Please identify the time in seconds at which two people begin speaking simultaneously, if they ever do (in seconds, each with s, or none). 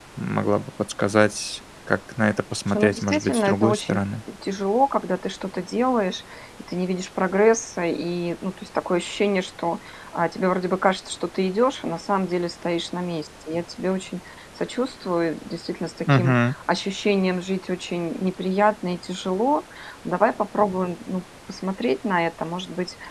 2.7 s